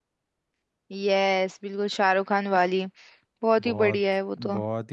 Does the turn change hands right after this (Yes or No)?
Yes